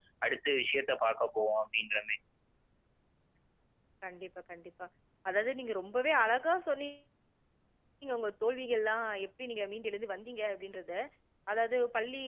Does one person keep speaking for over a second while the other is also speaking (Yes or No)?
No